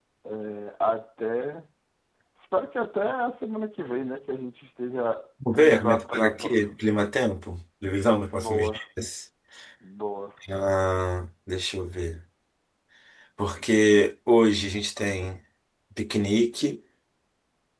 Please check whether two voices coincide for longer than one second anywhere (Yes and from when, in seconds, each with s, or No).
Yes, from 5.5 s